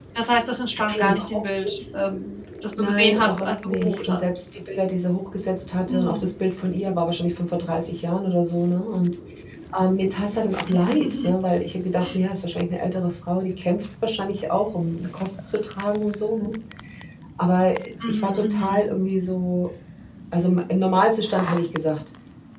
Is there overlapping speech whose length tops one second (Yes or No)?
Yes